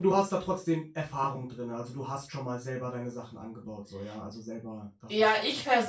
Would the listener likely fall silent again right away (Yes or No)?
No